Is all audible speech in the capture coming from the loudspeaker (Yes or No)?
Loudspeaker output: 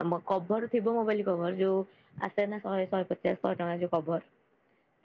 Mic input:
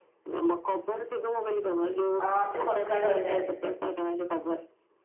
No